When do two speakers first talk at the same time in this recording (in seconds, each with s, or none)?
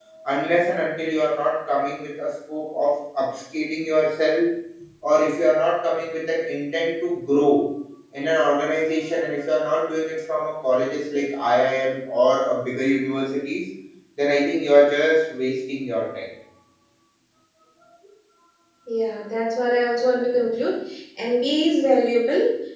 none